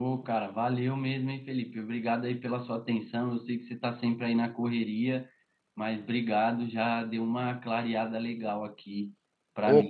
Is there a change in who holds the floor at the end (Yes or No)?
Yes